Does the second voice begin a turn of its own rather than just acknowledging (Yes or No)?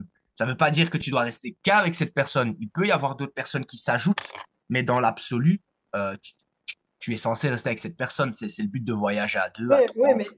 Yes